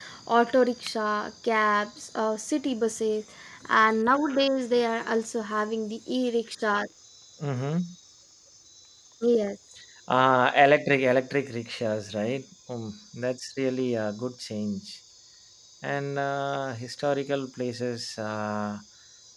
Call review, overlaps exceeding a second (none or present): none